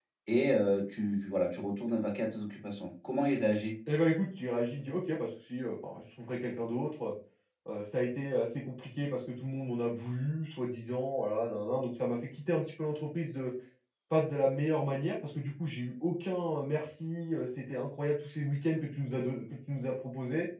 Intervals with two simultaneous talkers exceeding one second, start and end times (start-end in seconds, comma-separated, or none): none